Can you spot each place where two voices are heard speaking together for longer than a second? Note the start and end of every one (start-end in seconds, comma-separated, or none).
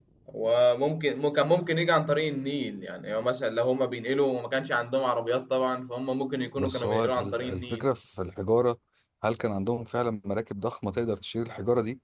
6.6-7.8